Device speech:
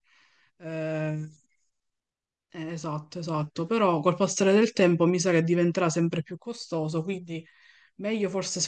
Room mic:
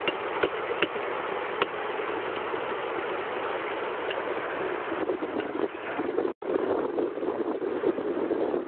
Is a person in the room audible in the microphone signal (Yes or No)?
No